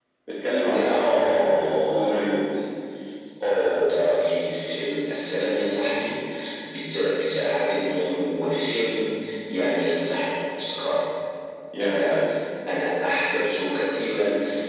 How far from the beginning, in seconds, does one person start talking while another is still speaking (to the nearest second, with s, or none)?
1 s